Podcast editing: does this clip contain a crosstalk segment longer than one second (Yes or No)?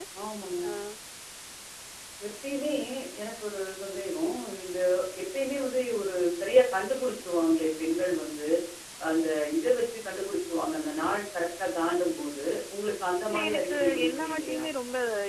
Yes